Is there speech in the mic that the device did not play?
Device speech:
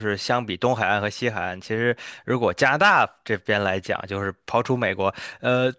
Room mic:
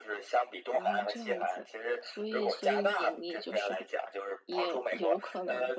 Yes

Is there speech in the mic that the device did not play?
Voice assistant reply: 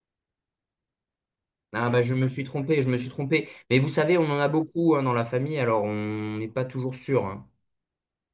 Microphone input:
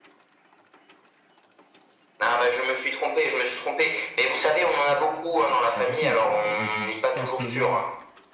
Yes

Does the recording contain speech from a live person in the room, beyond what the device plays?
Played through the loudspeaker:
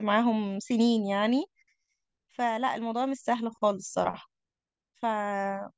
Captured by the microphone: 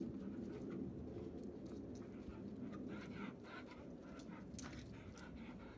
No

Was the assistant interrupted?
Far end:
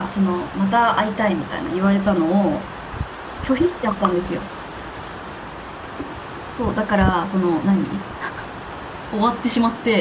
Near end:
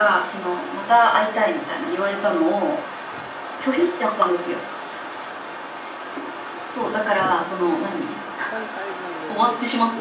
Yes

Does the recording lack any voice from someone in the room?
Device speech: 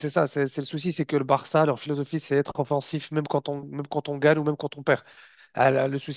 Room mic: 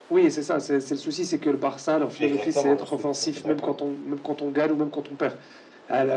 No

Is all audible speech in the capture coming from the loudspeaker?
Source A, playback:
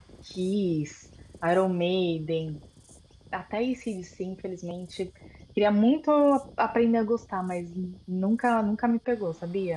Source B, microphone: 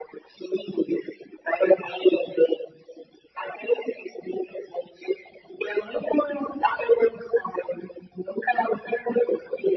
Yes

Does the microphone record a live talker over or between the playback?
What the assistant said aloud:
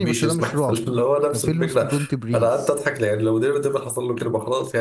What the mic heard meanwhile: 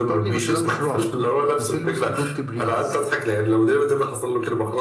No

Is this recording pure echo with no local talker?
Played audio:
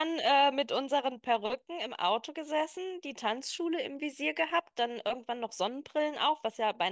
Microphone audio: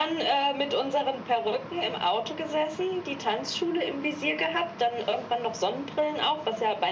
Yes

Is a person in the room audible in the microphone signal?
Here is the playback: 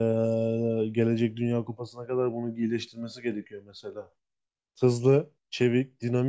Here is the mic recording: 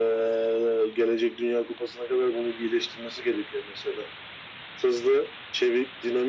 No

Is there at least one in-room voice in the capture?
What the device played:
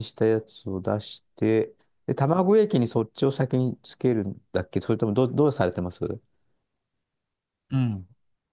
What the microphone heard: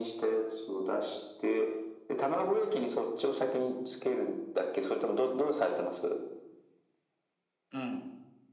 No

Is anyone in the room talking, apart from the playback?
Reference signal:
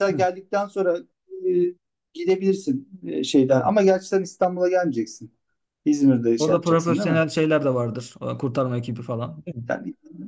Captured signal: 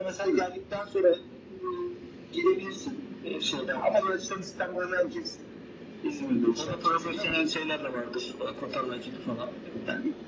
No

